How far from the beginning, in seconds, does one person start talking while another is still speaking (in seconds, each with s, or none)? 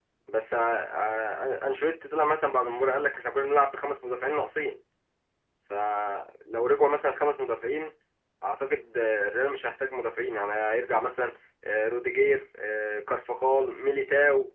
none